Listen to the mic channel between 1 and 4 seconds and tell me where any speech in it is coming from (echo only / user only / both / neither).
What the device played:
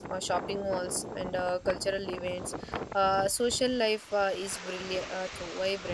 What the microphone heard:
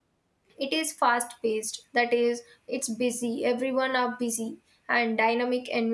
user only